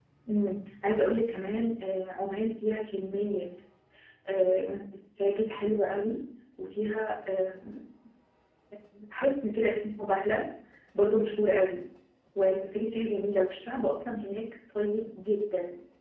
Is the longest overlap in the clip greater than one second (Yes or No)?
No